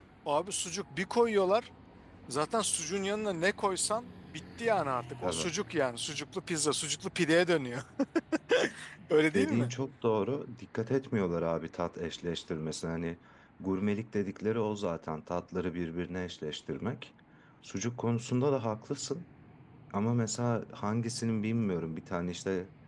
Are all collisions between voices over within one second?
Yes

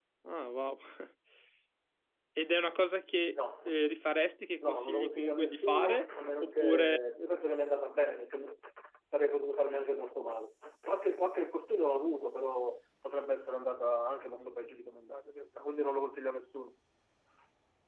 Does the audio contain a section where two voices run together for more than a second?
Yes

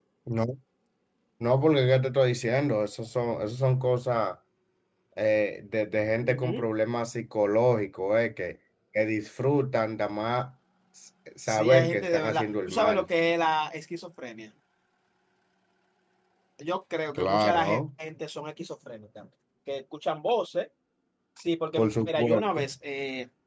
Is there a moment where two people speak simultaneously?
Yes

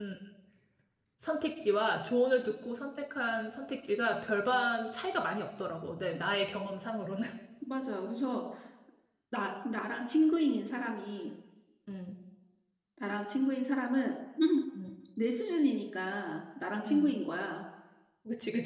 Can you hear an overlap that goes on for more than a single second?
No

